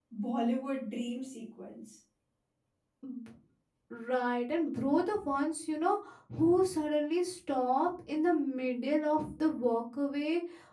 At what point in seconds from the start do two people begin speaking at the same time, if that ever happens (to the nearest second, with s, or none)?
none